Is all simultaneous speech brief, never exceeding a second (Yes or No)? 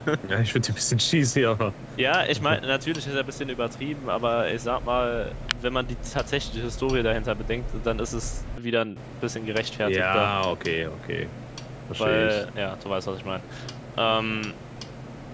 Yes